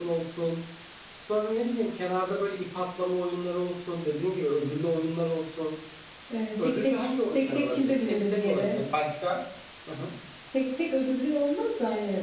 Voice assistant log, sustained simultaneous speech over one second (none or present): present